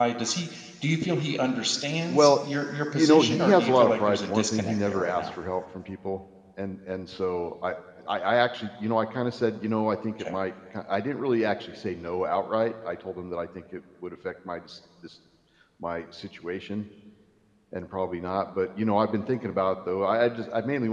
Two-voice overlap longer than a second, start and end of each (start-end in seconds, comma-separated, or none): 2.9-5.3